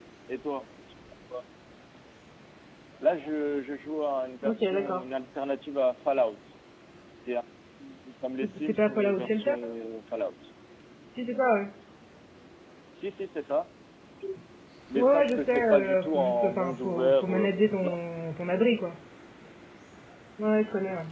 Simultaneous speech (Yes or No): Yes